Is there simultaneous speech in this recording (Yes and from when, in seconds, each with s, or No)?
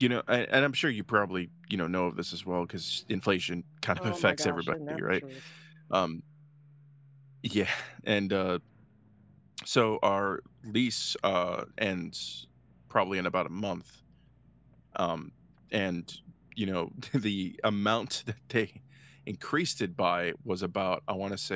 Yes, from 4.0 s